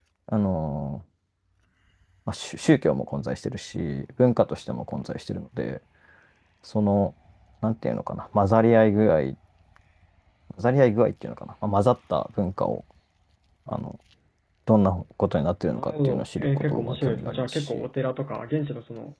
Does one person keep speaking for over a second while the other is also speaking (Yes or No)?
Yes